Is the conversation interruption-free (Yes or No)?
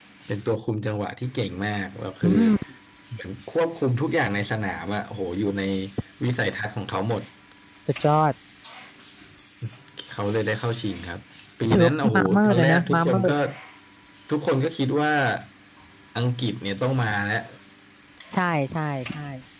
No